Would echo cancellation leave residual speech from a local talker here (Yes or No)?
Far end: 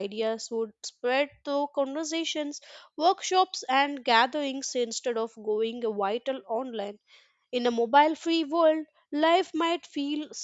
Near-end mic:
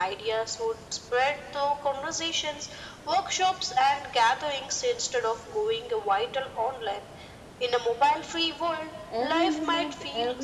Yes